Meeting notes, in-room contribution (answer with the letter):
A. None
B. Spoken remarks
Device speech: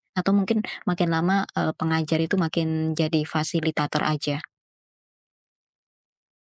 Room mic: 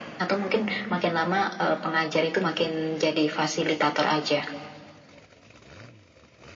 A